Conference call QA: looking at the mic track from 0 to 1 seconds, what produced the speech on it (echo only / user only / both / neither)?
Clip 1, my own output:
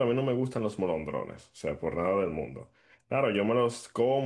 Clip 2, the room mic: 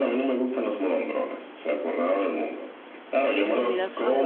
echo only